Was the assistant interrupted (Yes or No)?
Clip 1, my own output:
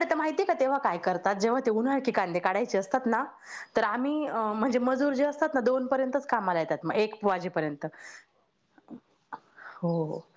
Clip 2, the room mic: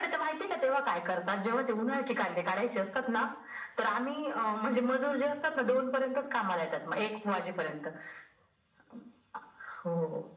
No